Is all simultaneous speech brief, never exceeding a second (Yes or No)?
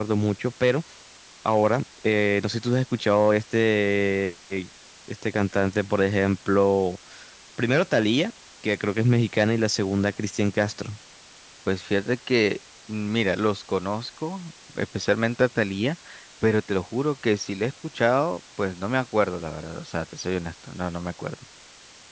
Yes